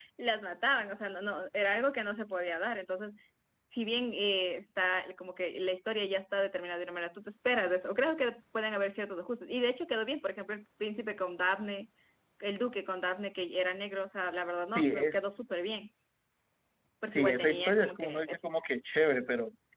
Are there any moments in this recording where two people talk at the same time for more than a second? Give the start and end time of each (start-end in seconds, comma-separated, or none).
17.1-18.4